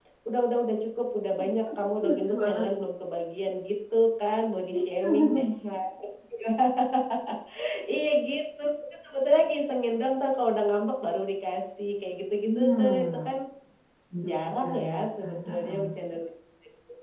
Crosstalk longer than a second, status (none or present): present